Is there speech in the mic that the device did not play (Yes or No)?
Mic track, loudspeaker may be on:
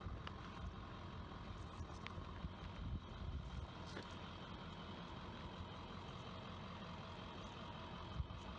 No